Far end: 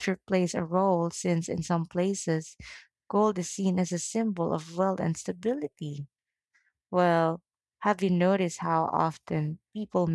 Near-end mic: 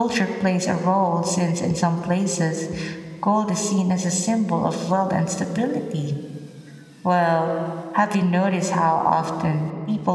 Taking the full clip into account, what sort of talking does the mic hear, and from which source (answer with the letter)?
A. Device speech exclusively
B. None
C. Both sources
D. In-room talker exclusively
A